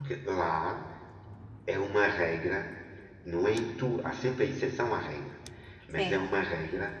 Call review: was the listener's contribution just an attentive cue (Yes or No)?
Yes